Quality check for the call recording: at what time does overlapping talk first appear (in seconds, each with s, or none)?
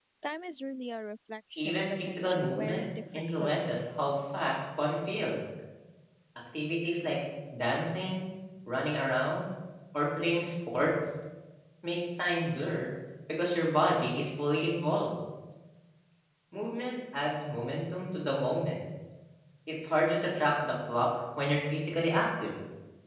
1.6 s